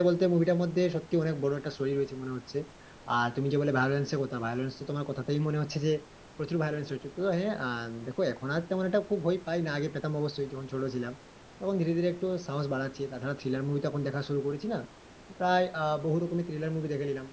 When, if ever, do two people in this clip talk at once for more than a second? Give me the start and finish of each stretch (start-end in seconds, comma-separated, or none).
none